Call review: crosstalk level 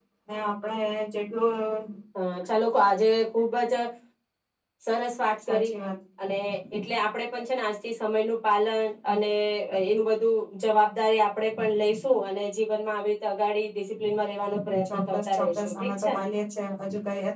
present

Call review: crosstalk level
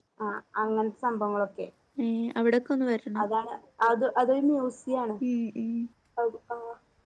none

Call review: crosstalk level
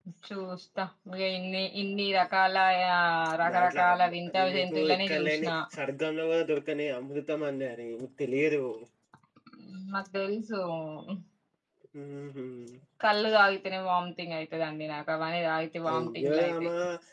present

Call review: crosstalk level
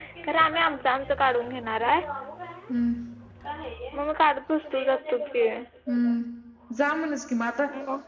none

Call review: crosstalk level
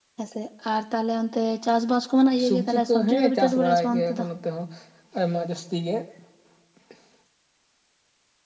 present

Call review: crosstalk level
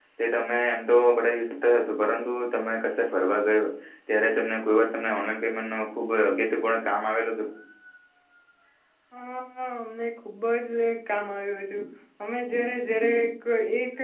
none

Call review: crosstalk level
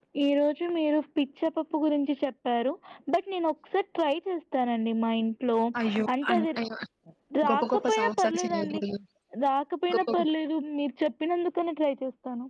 present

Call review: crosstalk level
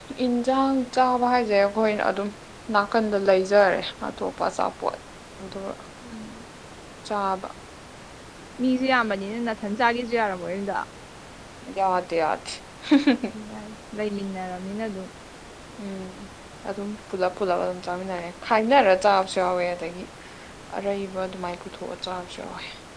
none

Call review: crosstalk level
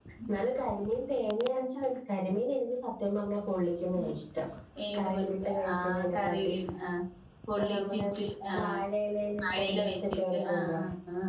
present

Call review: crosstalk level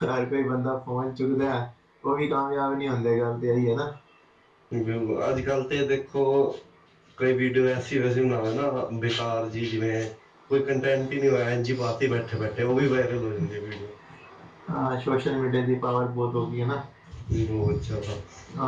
none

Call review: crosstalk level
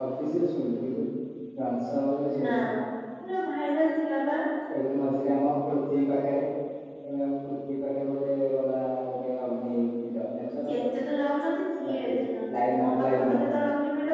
present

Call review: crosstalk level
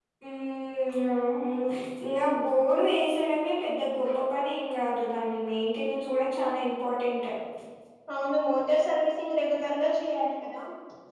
none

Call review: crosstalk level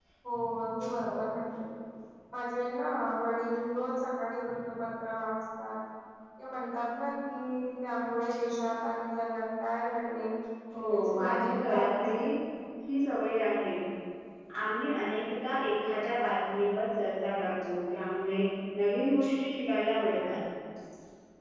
present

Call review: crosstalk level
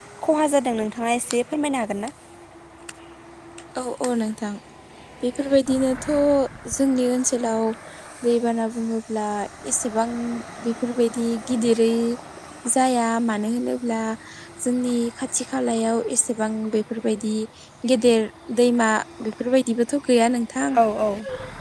none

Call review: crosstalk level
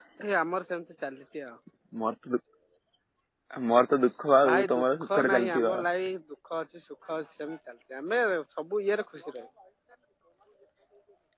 present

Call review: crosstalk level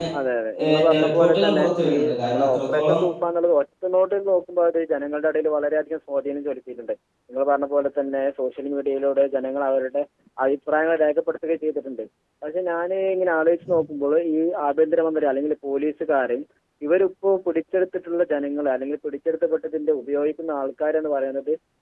present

